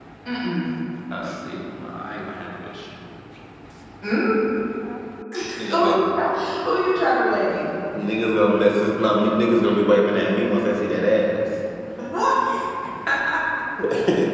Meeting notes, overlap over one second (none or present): none